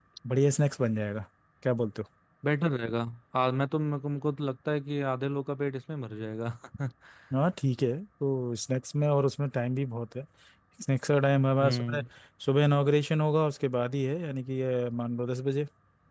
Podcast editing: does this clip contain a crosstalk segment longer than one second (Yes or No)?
No